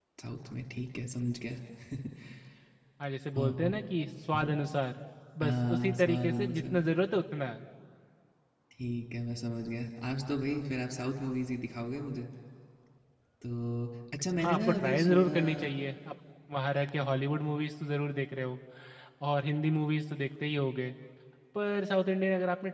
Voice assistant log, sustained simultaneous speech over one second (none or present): present